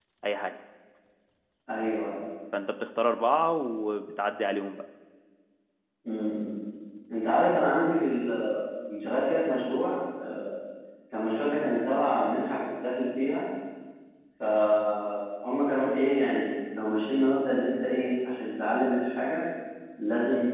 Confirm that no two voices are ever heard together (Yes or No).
Yes